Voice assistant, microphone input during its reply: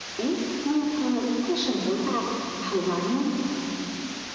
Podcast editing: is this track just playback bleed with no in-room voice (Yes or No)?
Yes